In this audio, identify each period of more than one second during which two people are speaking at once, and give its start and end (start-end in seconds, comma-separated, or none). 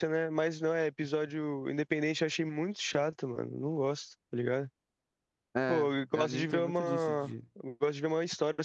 5.7-7.3